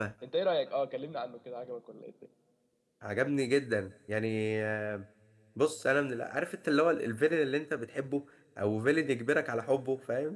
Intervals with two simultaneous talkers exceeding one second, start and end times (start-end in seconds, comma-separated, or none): none